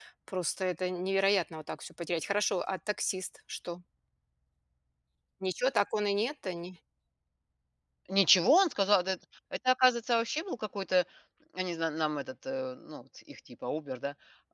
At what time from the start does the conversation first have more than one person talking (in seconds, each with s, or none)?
none